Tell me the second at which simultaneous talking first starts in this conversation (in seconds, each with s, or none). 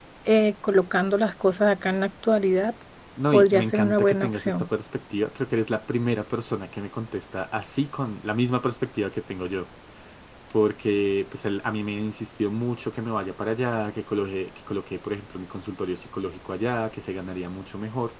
3.3 s